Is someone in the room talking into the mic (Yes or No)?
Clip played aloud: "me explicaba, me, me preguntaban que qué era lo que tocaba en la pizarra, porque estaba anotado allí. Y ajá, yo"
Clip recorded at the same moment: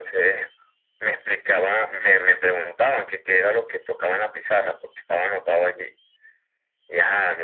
No